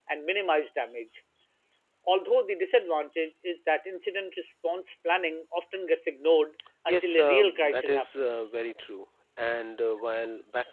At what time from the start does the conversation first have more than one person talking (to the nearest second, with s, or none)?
7 s